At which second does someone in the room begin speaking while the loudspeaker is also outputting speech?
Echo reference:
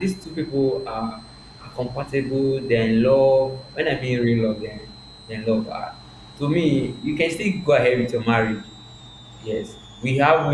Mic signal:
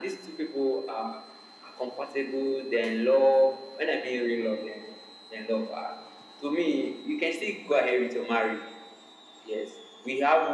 none

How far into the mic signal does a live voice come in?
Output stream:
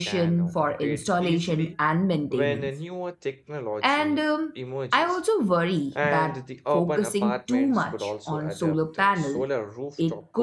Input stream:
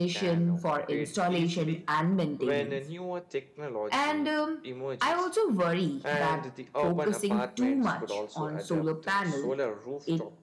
none

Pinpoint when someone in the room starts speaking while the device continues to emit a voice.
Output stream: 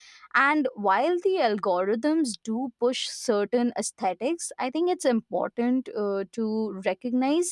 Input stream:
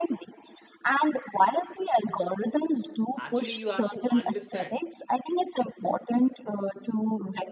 3.1 s

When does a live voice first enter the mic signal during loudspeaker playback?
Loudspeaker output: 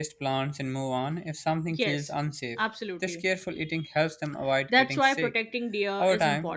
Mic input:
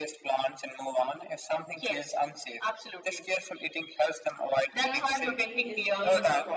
4.8 s

